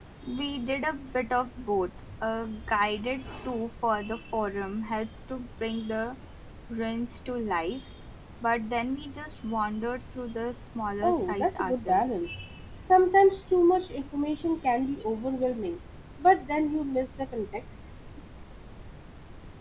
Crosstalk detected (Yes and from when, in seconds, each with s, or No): Yes, from 11.0 s